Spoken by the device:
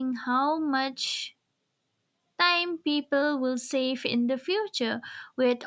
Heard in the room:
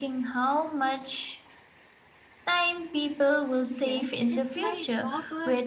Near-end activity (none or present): present